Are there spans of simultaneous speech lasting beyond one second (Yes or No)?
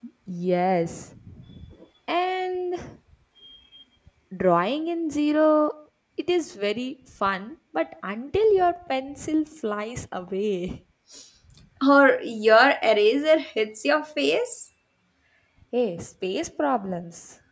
No